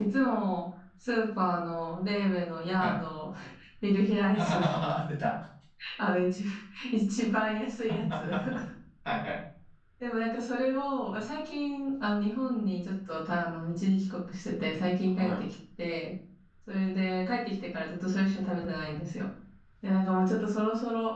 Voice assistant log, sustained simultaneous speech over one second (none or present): none